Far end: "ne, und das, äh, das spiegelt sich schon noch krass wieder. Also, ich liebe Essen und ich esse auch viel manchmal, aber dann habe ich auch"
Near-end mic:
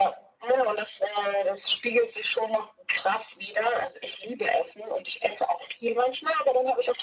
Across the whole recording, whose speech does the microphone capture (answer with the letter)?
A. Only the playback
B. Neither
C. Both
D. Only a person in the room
A